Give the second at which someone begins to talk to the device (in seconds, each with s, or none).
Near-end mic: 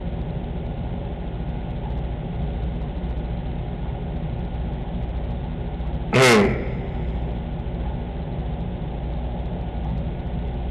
6.2 s